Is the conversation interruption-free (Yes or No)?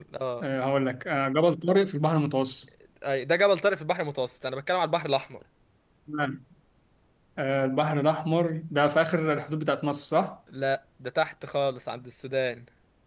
Yes